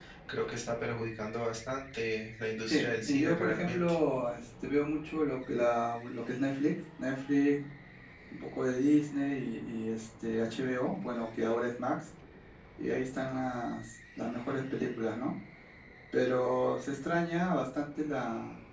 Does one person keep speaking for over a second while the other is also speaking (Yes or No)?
Yes